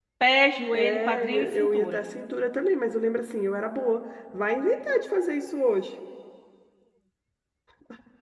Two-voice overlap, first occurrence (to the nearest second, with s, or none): 1 s